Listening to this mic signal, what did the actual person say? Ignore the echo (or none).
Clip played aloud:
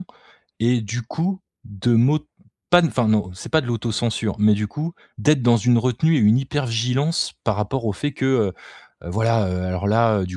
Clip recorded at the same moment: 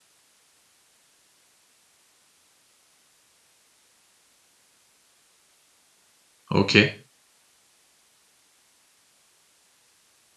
OK,